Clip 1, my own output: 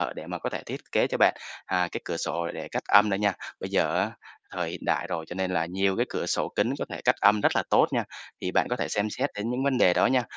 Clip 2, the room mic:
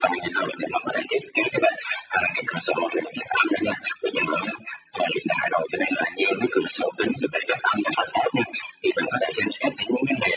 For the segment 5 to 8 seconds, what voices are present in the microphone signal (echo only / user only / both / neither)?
echo only